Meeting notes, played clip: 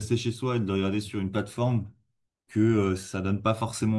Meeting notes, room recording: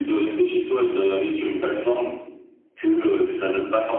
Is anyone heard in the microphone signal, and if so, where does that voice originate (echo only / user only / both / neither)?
echo only